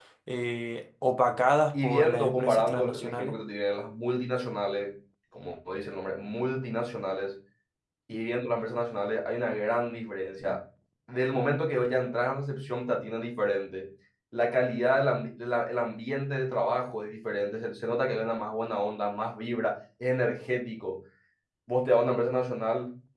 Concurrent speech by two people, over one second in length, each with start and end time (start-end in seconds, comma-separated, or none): 1.7-3.3